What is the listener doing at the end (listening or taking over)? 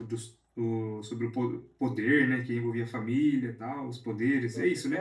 taking over